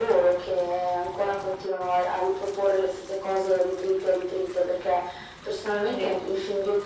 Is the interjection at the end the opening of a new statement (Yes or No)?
No